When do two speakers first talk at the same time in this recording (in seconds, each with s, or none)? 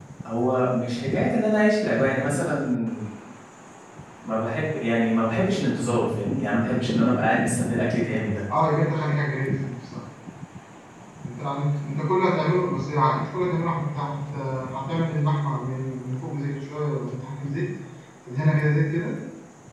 none